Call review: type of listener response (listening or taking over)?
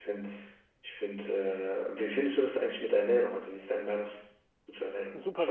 taking over